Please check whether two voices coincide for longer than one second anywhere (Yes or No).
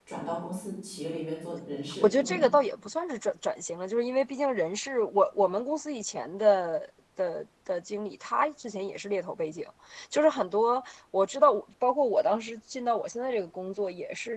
No